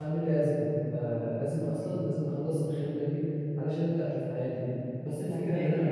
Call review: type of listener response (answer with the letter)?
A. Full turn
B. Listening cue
A